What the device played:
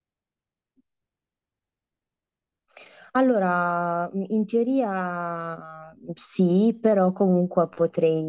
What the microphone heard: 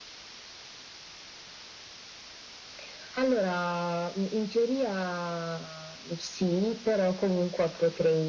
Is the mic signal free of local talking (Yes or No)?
Yes